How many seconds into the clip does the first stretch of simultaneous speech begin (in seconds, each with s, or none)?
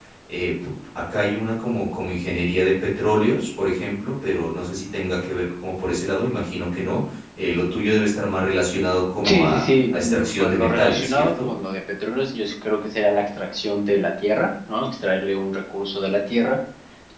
9.2 s